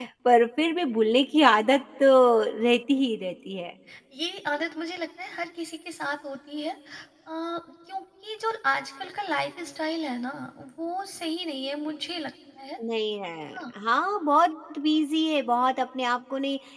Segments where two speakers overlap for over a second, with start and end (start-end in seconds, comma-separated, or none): none